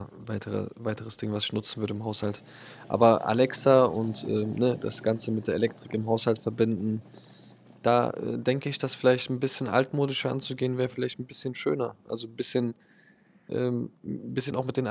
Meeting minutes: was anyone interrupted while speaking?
No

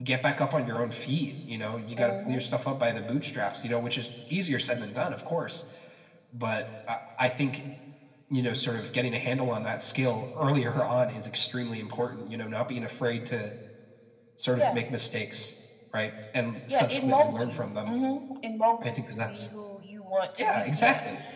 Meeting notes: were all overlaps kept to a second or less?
No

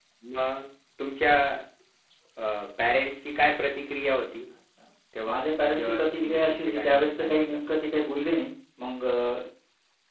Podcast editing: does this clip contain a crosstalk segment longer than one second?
Yes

